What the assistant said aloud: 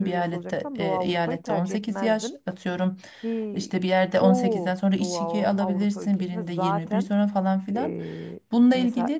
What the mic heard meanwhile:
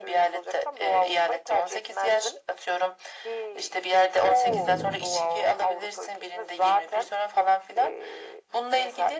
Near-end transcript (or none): mesela.